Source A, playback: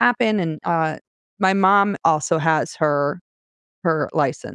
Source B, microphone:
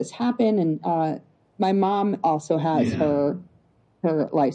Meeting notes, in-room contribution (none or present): present